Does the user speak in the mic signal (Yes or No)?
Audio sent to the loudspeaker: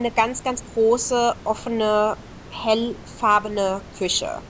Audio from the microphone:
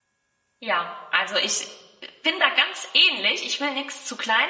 Yes